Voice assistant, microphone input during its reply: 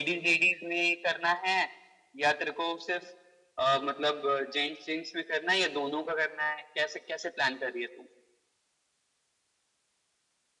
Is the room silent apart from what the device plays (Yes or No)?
Yes